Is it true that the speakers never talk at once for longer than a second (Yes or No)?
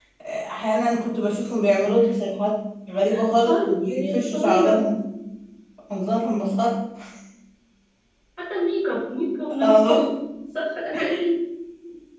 No